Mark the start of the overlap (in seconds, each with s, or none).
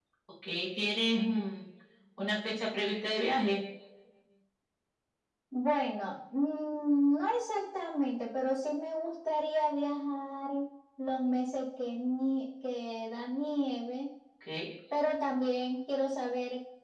none